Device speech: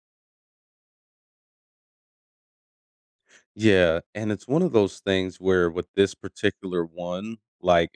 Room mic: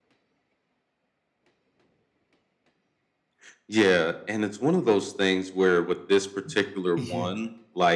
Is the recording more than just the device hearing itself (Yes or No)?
Yes